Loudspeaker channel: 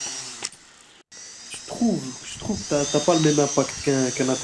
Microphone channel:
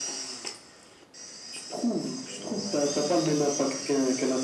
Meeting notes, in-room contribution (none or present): present